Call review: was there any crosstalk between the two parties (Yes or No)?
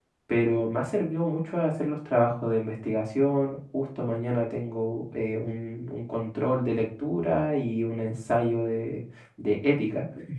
No